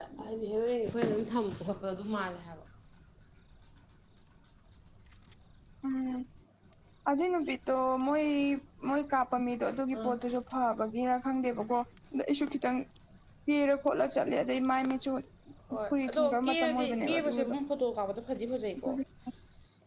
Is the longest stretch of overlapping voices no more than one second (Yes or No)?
No